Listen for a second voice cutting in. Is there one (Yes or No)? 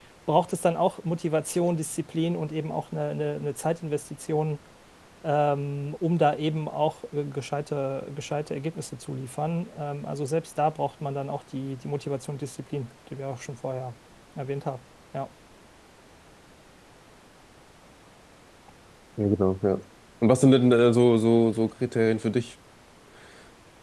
No